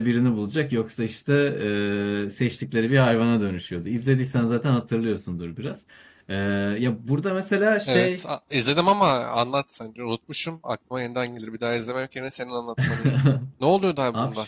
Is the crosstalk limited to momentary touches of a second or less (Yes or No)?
Yes